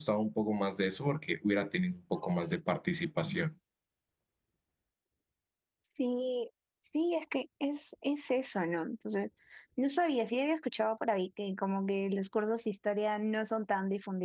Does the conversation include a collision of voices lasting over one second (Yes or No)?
No